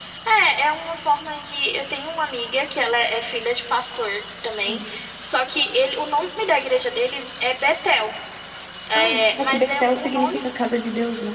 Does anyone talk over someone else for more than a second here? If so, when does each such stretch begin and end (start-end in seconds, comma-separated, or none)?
8.9-10.4